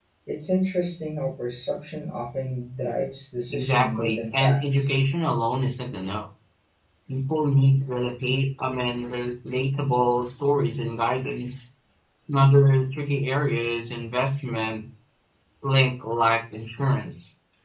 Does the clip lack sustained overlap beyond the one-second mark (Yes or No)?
No